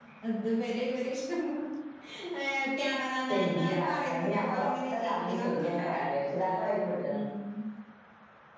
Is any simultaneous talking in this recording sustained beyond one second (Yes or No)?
Yes